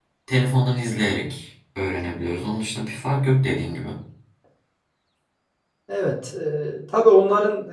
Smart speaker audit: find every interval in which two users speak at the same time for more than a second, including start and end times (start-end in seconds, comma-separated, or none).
none